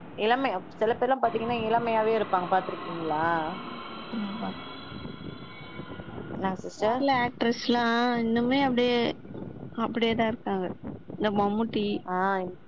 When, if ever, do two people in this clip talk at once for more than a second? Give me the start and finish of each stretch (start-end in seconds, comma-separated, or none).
none